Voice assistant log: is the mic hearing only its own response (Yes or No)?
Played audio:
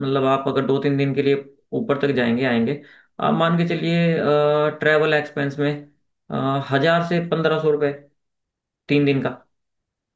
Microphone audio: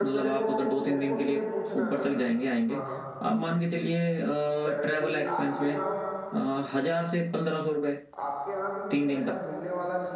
No